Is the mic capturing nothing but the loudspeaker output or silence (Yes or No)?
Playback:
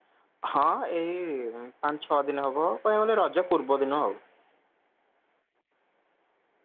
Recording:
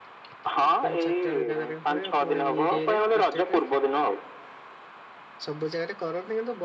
No